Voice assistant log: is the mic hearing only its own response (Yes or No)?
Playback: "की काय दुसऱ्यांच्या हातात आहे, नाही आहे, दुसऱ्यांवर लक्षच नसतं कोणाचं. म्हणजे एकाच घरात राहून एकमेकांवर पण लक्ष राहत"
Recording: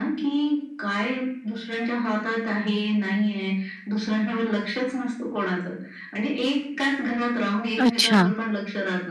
No